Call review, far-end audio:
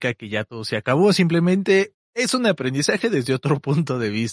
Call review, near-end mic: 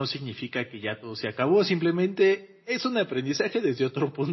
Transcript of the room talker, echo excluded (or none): none